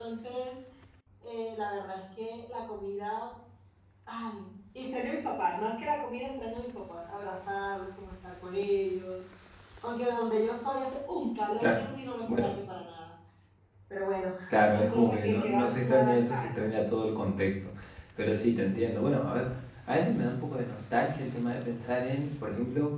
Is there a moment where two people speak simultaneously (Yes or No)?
Yes